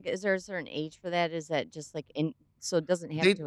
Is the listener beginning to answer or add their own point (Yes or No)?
Yes